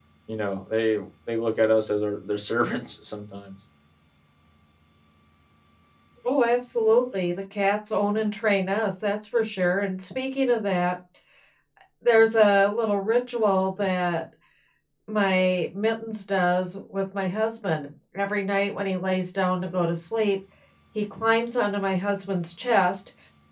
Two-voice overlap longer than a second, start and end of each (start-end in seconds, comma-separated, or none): none